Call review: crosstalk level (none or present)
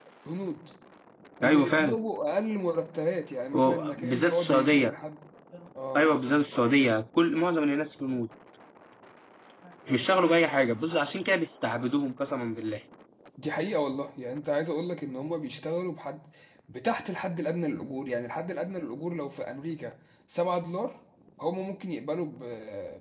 present